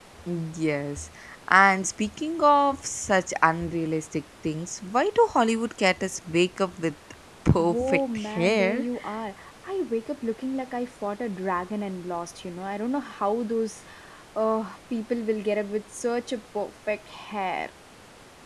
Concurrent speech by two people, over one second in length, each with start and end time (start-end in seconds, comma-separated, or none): 7.6-8.8